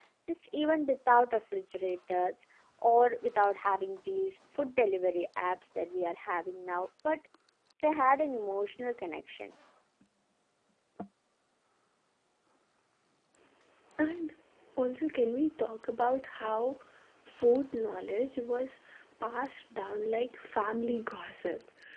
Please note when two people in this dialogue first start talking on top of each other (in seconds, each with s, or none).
none